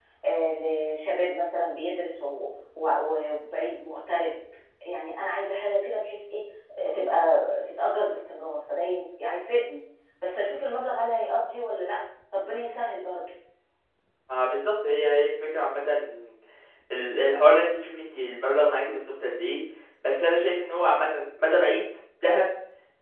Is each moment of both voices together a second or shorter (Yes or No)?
Yes